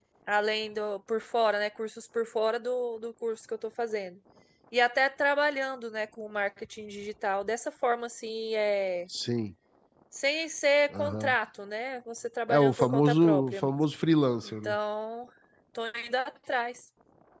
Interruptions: present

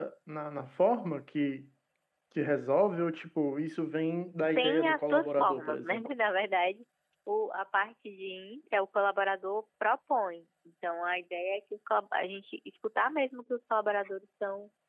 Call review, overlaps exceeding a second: present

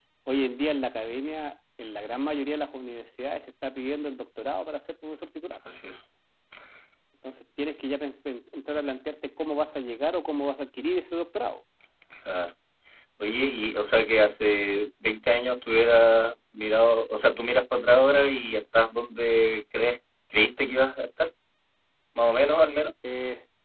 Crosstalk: none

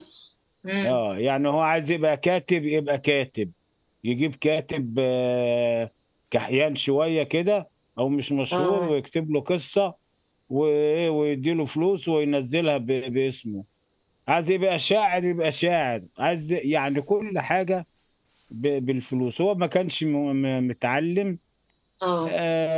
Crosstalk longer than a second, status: none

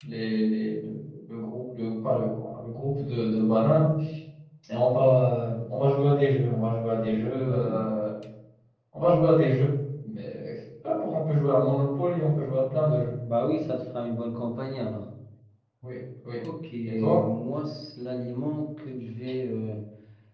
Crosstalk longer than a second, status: none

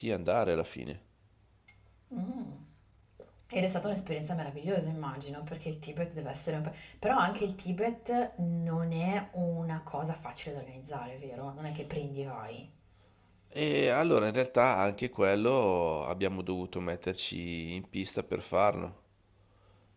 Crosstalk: none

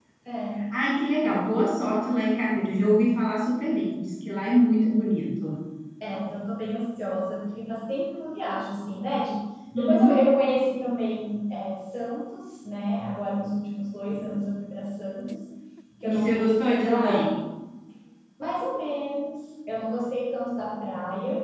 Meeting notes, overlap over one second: present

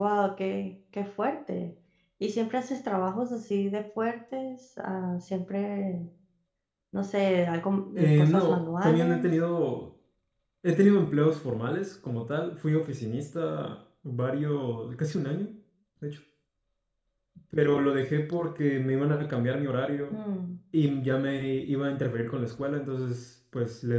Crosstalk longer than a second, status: present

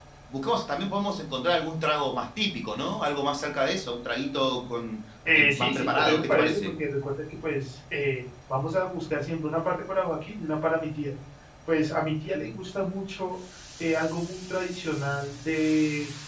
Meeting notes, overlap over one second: present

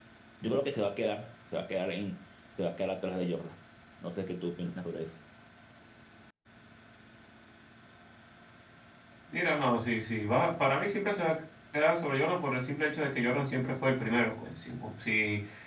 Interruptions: none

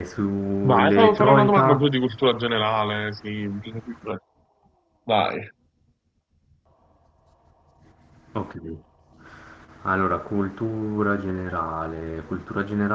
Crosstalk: present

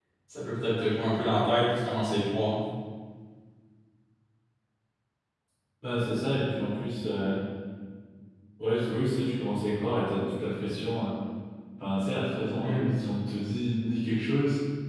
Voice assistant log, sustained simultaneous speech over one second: none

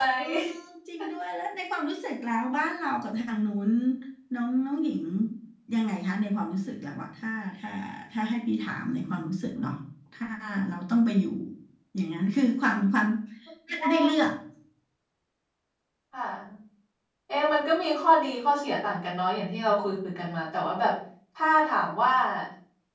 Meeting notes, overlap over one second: none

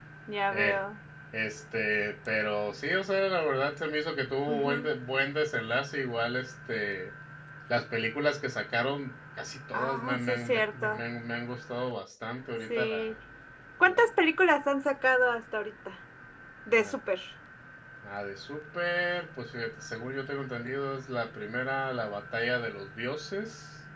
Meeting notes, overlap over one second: present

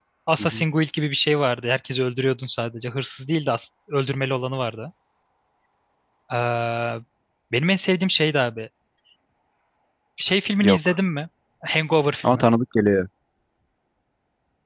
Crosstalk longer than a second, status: none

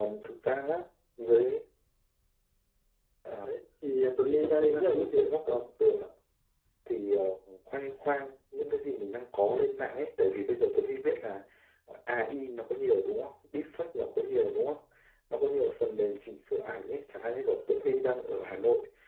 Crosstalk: present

